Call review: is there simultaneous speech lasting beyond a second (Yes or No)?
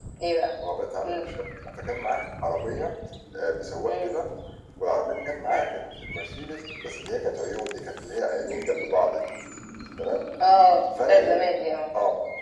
No